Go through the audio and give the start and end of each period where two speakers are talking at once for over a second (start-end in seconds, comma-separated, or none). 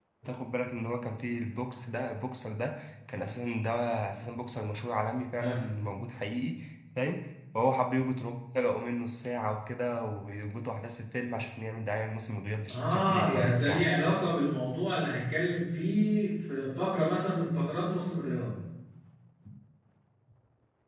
12.7-13.9